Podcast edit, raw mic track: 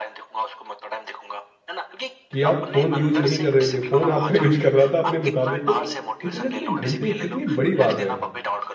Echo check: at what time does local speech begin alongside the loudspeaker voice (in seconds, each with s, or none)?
2.3 s